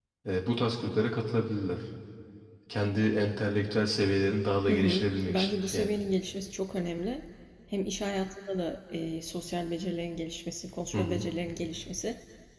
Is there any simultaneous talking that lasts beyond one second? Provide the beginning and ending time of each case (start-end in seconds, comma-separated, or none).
4.7-6.0